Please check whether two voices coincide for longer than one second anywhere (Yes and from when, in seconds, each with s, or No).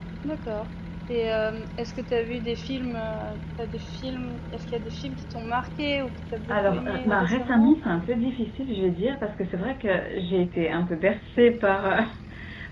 Yes, from 6.5 s